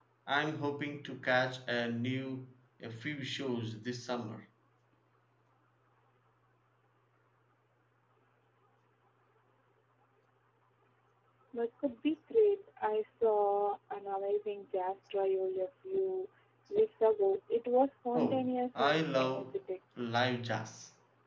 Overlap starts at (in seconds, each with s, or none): 18.1 s